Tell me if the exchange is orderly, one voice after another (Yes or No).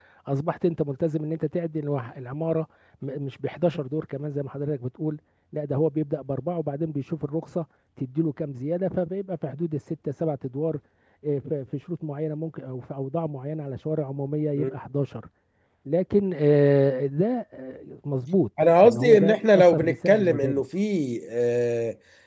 No